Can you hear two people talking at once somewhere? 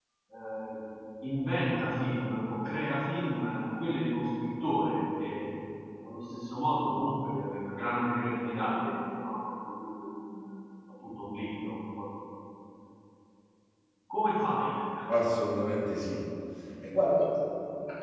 No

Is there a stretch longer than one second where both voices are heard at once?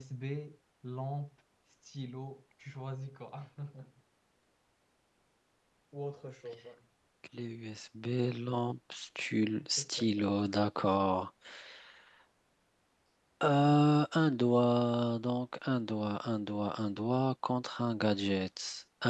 No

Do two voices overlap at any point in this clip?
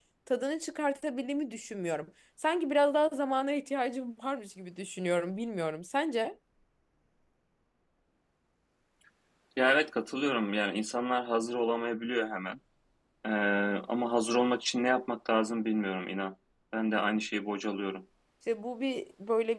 No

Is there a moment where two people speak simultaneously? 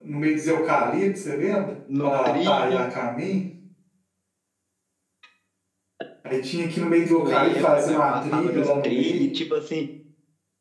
Yes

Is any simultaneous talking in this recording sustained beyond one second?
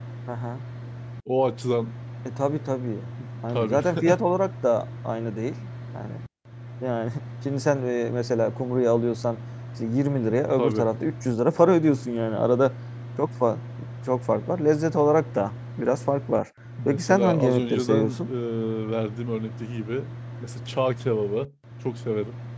Yes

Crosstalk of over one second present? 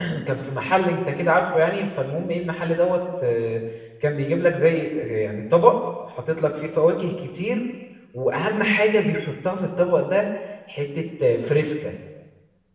No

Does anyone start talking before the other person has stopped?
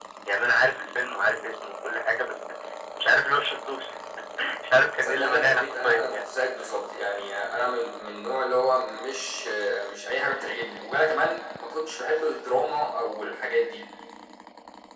Yes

